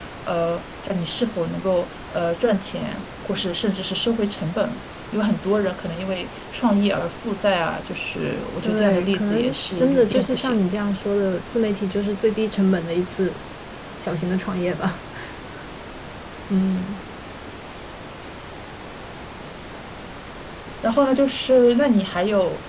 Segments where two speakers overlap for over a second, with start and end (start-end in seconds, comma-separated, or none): 8.6-10.6